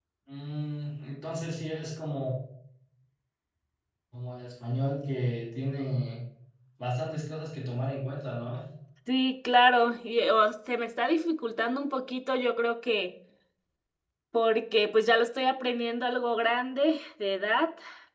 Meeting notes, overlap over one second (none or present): none